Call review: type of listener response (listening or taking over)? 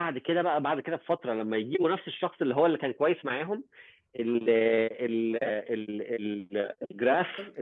listening